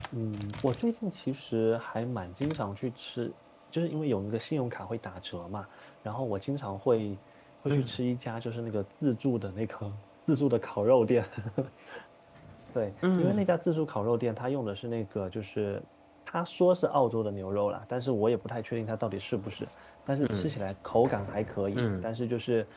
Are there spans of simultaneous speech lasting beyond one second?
No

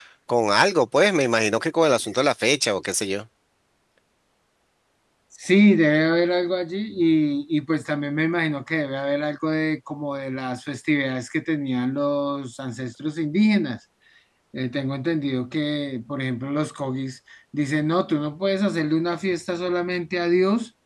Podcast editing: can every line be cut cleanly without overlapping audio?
Yes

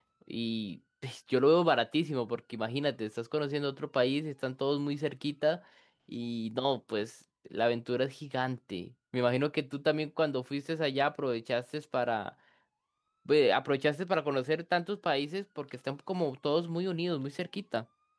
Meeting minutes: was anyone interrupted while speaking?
No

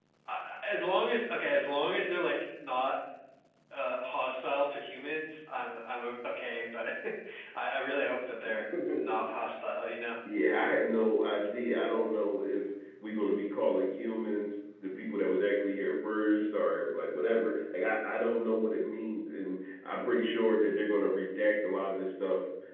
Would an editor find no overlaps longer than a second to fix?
Yes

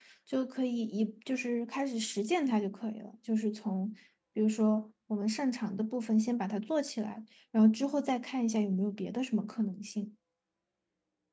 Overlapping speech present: No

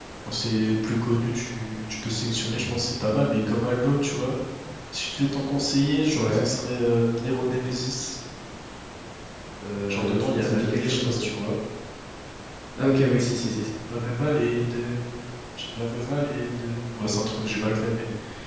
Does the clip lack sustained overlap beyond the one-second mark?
No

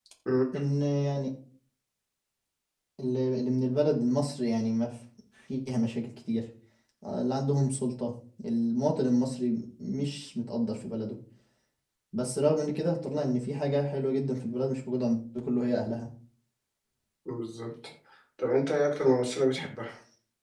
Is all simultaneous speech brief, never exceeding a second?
Yes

